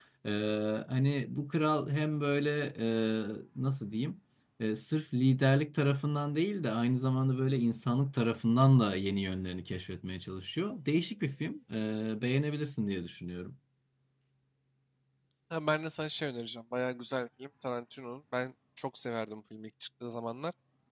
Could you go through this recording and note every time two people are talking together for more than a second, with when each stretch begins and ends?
none

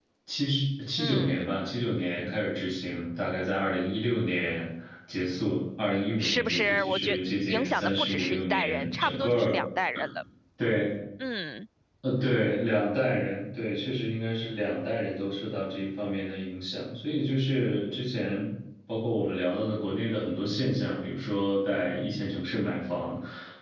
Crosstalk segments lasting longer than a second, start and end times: 6.2-9.6

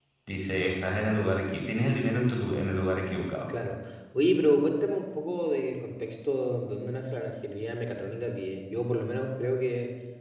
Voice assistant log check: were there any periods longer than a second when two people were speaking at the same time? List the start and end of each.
none

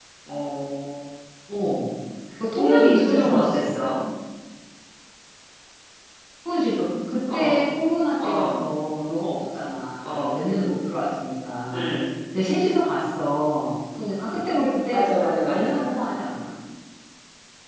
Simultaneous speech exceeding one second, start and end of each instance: 2.5-3.7

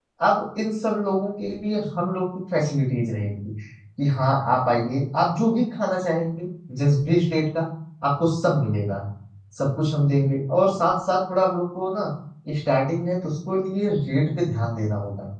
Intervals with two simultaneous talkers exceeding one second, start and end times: none

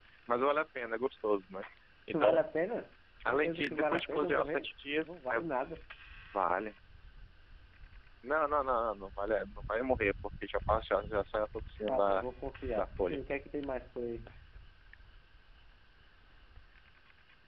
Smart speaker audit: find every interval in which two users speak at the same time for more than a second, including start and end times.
3.3-5.4

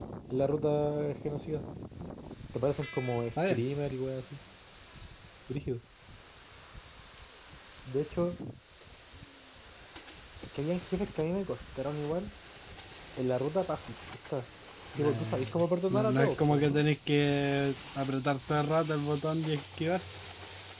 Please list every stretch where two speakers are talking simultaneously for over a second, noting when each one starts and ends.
15.0-16.8

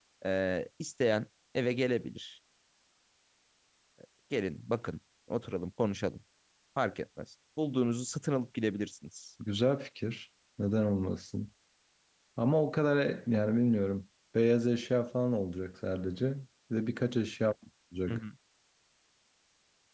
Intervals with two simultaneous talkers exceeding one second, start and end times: none

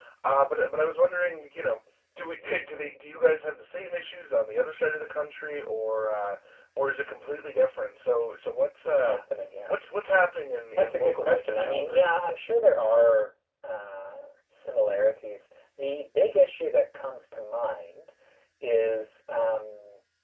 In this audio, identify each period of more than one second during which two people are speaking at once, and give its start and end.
10.8-12.1

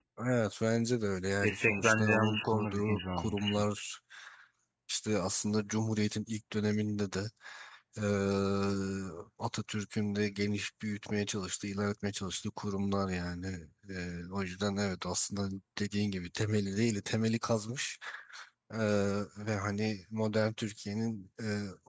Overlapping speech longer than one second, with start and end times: 1.4-3.6

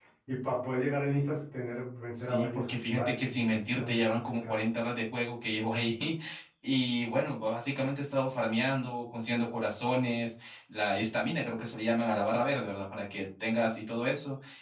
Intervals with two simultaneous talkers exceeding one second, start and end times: 2.1-4.6

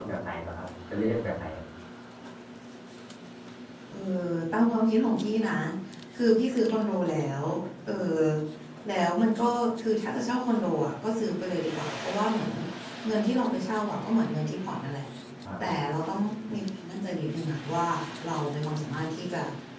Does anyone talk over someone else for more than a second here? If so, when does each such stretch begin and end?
none

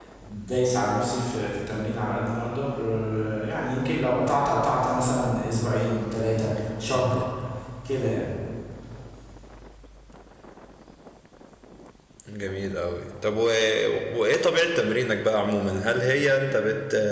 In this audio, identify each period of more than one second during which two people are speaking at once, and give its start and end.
none

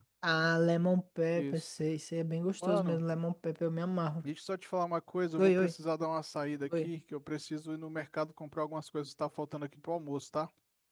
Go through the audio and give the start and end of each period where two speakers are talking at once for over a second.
none

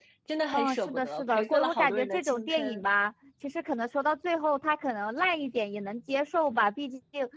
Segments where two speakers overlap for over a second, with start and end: 0.5-2.8

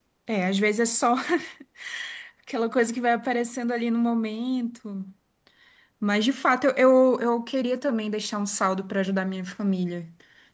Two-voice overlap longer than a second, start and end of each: none

